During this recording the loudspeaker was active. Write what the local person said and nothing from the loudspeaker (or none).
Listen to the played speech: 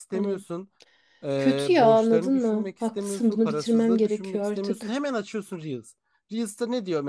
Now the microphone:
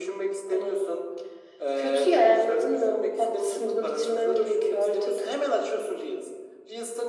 none